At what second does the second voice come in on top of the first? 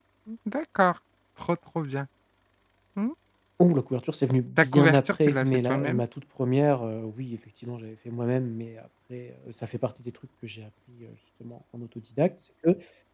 4.6 s

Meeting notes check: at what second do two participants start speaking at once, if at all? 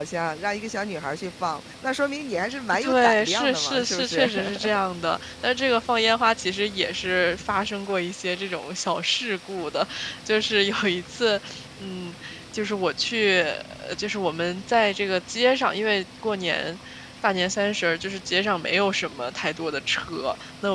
2.7 s

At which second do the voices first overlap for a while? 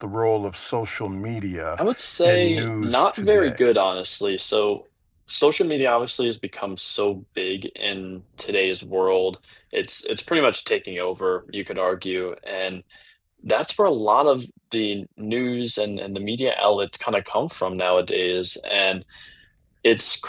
2.2 s

